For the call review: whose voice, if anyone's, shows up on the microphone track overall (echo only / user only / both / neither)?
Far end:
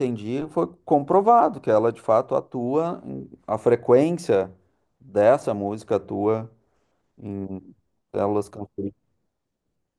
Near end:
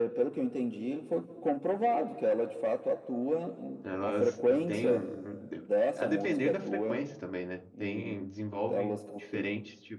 both